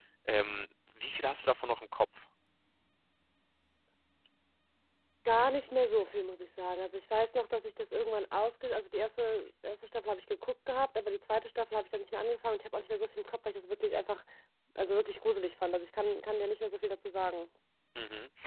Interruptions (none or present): none